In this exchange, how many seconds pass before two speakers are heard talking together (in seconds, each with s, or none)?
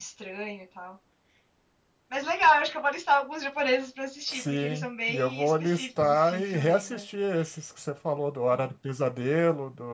4.3 s